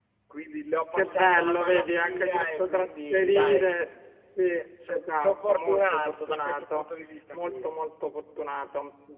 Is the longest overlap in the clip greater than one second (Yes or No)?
Yes